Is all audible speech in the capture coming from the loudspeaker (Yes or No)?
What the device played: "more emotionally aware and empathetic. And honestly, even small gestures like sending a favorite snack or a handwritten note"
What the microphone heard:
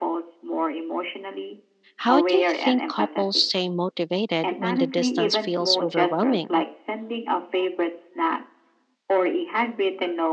No